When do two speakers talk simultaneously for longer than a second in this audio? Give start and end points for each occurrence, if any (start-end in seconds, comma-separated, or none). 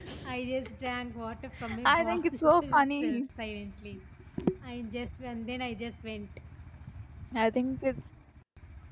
1.9-3.2